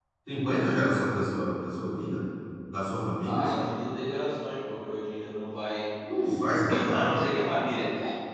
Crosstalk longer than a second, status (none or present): none